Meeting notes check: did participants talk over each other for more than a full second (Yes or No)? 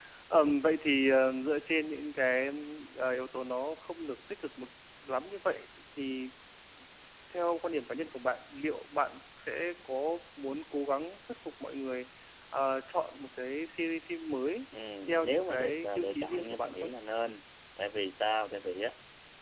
Yes